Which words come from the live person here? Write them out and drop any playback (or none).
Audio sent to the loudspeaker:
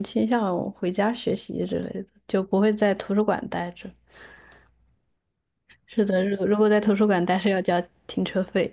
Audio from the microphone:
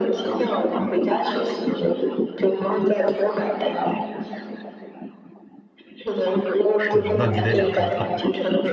是，那你得两头跑，